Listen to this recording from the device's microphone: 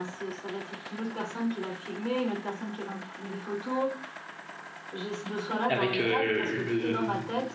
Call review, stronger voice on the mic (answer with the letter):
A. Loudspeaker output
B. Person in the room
B